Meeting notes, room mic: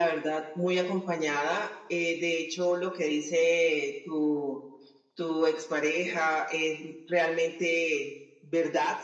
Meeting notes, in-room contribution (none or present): none